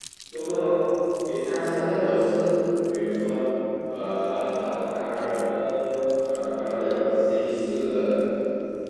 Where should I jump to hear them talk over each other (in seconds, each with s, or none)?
none